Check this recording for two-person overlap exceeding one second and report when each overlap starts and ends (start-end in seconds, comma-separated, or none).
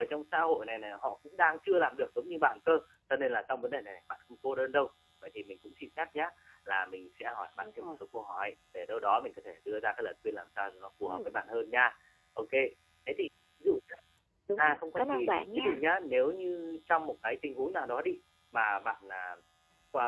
14.6-15.8